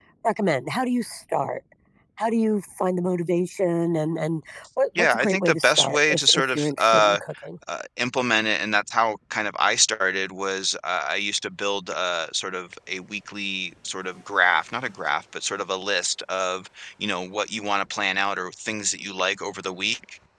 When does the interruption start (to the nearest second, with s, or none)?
5 s